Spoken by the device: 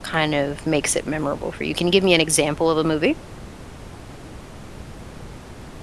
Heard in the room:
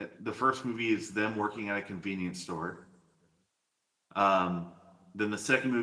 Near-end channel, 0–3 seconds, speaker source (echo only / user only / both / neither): user only